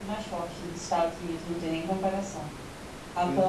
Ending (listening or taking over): listening